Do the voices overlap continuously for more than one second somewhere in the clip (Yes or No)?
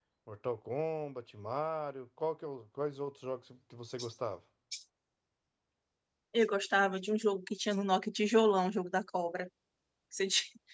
No